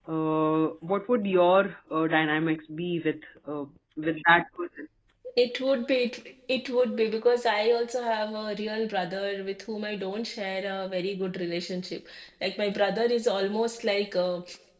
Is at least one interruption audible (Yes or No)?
No